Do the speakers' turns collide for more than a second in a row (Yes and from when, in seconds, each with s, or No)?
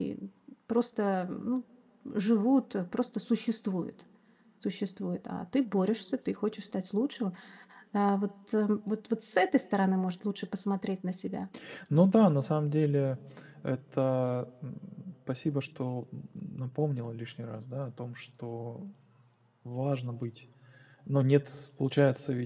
No